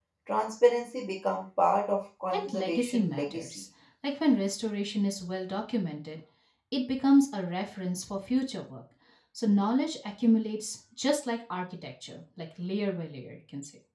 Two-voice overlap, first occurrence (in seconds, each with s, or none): 2.3 s